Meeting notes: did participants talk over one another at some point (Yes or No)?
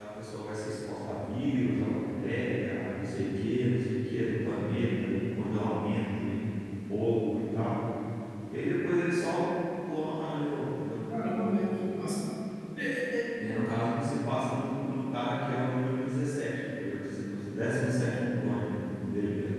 No